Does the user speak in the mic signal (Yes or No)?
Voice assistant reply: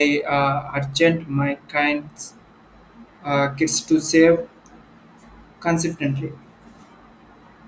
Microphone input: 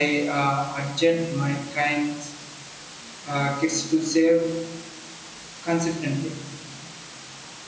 No